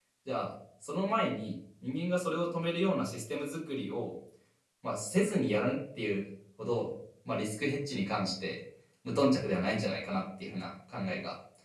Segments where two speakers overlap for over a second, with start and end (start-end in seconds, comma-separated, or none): none